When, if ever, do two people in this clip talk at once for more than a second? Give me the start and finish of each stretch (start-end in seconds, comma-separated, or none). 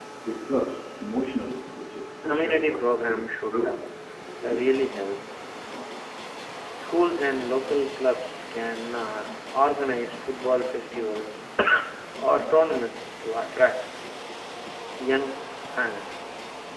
2.2-3.8